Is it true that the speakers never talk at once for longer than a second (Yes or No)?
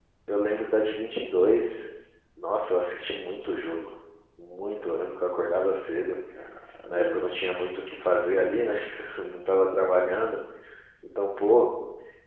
Yes